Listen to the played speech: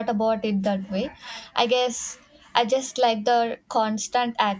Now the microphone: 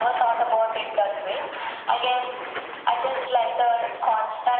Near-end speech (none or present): none